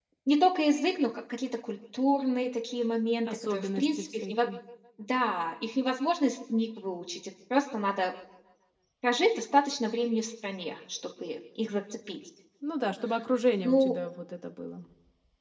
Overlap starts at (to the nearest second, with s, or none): 3 s